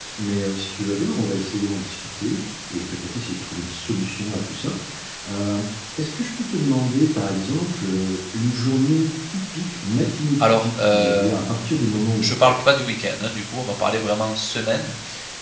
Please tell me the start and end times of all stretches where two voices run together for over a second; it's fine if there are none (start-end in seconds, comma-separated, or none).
10.4-11.8